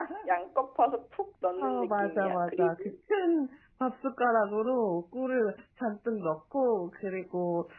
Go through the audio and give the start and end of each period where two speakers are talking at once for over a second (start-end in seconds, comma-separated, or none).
1.6-2.9